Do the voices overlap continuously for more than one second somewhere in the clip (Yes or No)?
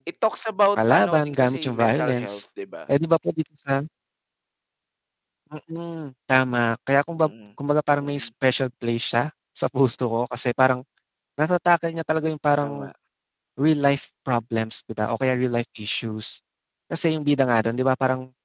Yes